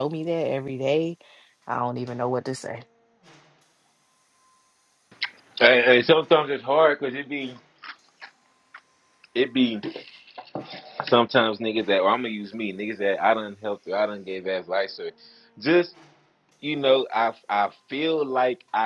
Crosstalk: none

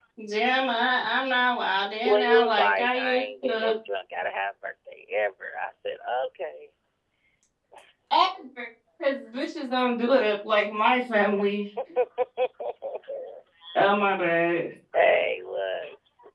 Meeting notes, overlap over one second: present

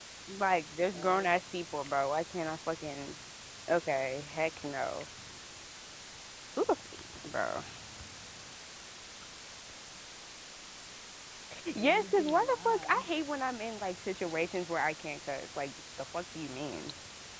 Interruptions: present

